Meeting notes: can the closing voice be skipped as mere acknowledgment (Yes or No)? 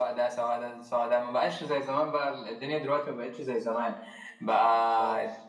Yes